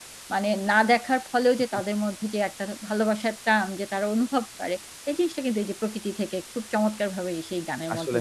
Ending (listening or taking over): taking over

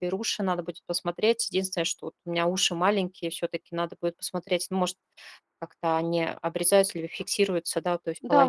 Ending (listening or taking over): taking over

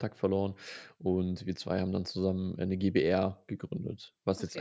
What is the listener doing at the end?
taking over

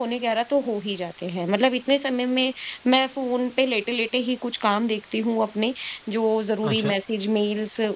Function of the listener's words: listening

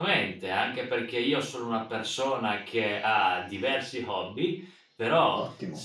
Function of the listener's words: listening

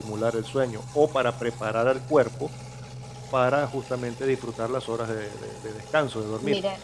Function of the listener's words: taking over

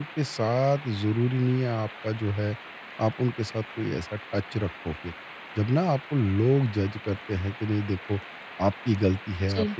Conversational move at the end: listening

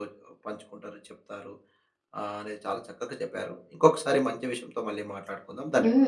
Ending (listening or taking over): taking over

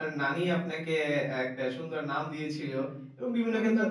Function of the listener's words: listening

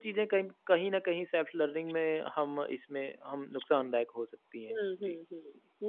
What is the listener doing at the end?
taking over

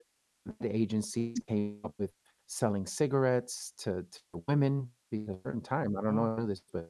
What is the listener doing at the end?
listening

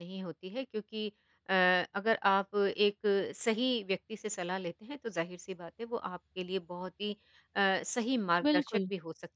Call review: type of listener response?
listening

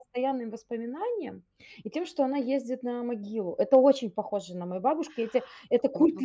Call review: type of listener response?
taking over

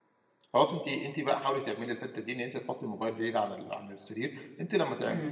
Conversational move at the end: listening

